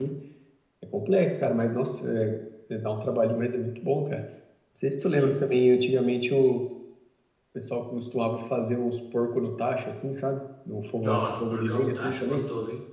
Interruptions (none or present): present